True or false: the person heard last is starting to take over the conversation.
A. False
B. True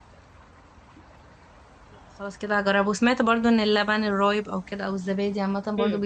B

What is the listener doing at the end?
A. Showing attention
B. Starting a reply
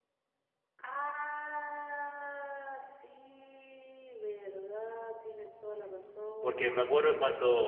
B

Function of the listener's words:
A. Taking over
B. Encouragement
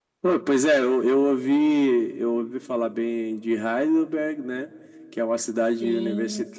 B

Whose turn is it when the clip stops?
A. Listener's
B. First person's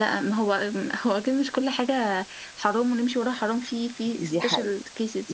A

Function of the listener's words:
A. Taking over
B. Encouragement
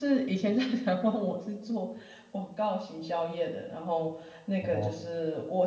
B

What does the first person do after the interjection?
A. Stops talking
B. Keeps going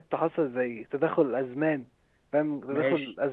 B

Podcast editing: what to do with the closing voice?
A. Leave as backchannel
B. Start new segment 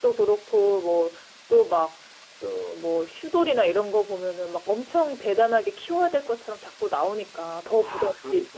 B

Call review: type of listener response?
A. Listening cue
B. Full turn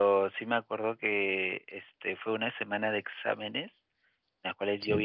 A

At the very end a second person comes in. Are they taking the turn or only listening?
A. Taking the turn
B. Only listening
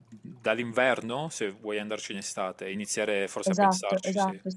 A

